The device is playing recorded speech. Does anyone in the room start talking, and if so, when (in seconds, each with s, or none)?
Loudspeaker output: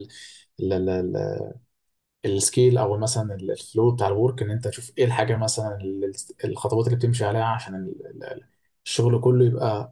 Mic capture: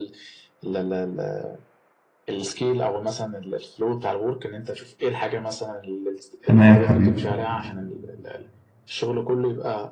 6.5 s